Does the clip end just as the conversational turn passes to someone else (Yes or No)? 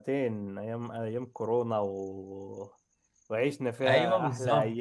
No